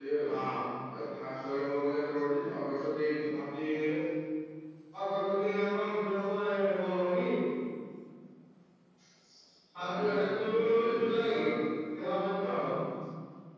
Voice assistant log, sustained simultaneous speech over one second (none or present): present